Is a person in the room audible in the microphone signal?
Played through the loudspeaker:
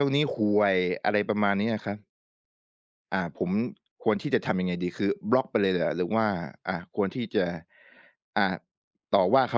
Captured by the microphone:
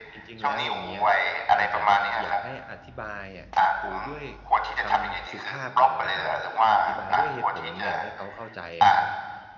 Yes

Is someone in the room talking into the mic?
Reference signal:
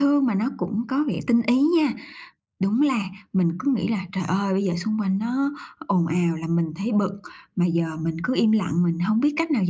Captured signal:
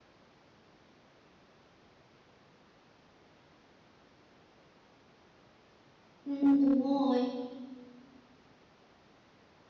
Yes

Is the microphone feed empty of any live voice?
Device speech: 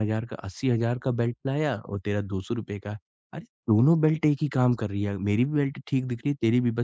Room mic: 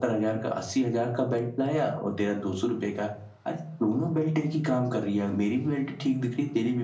Yes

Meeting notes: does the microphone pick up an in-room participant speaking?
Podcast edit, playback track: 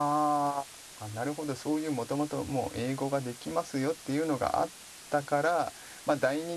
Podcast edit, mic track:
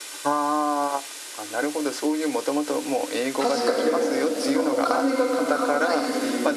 Yes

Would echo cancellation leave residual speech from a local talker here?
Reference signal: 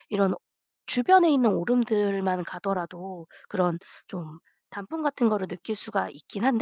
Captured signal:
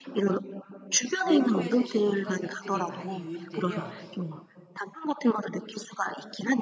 Yes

